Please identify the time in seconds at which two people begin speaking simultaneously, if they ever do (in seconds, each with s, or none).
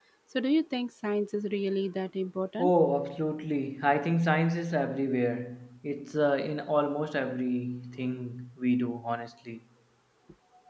none